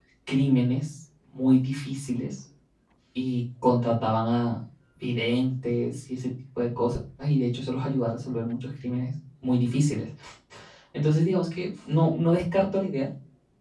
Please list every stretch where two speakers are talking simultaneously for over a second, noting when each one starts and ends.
none

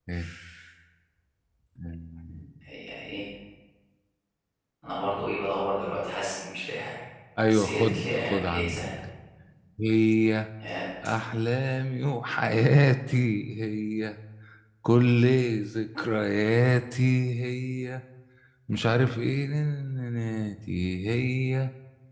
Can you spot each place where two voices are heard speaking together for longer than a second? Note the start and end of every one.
7.5-8.8

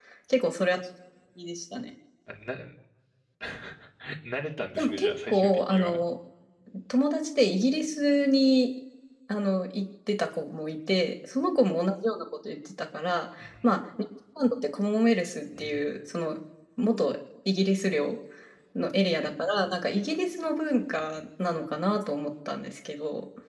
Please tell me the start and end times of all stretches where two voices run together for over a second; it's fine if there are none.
4.8-6.0

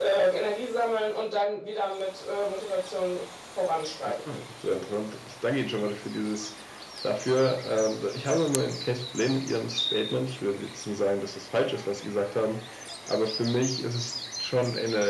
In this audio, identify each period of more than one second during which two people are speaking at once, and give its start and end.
none

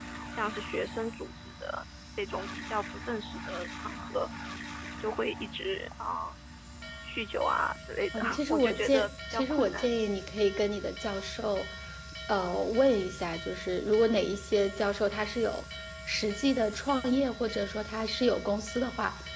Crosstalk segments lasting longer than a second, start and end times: 8.1-9.9

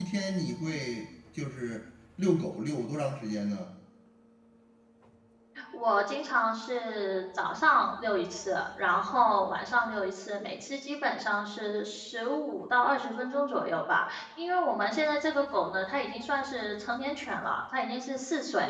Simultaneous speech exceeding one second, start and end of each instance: none

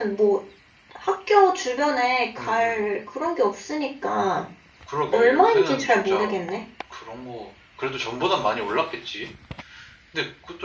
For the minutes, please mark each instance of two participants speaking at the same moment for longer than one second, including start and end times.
5.1-6.4

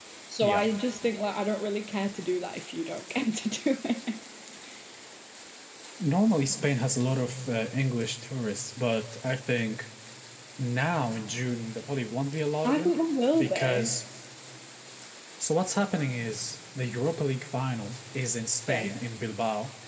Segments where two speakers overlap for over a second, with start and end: none

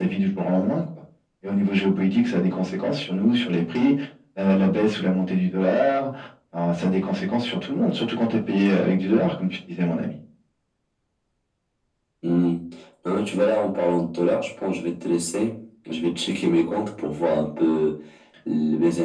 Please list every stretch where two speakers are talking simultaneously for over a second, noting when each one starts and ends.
none

